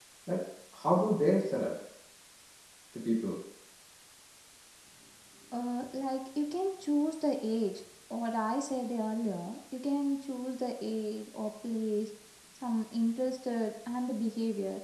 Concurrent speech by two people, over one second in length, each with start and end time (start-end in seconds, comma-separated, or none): none